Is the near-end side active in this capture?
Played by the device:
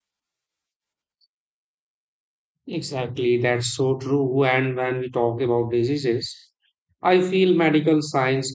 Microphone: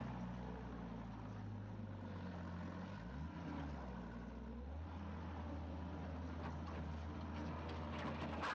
No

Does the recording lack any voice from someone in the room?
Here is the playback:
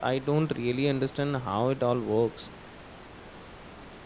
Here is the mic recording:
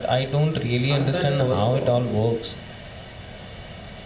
No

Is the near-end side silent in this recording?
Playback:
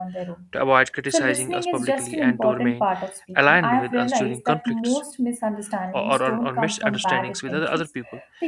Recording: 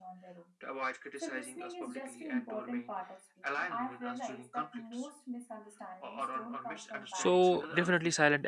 No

